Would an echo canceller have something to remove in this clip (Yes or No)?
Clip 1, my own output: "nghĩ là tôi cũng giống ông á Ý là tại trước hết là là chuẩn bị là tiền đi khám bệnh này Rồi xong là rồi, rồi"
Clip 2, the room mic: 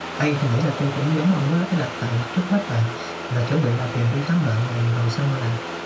Yes